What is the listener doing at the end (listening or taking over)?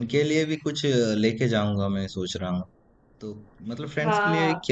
listening